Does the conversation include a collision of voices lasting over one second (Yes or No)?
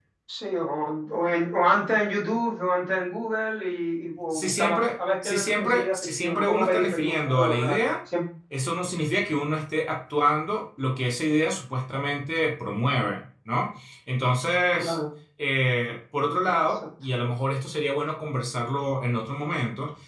Yes